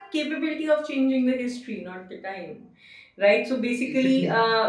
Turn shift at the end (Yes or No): No